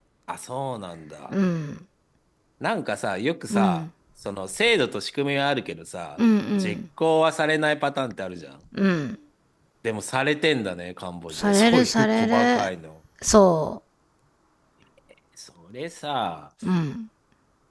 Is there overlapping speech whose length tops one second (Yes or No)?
Yes